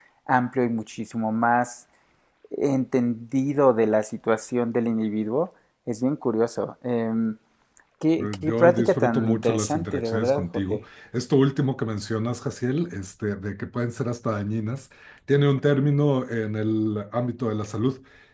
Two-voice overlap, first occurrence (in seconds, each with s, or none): 8.2 s